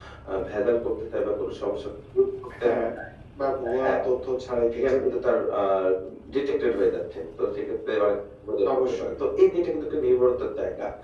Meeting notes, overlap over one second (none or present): none